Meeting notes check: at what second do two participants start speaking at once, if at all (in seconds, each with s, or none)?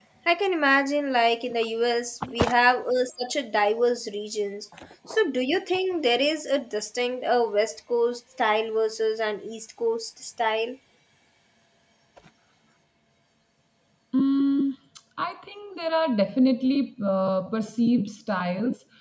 none